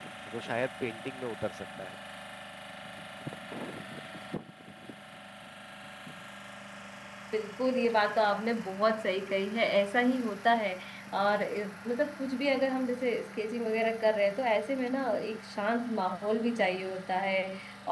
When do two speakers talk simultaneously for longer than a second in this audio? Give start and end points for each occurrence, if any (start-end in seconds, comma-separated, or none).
none